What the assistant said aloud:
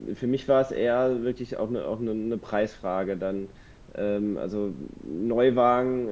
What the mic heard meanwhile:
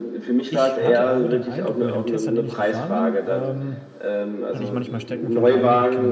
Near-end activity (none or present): present